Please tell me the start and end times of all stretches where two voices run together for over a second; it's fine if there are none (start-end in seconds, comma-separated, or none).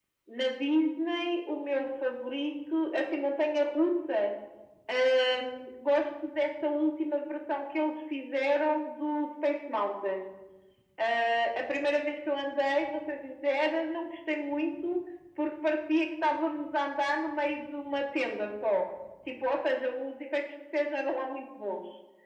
none